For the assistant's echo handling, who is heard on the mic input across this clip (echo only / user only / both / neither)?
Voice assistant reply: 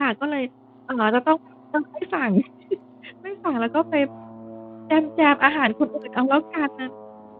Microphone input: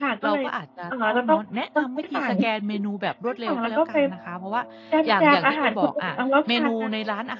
both